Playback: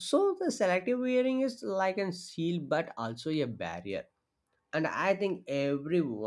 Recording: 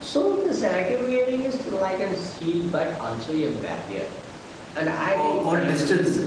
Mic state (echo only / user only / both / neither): both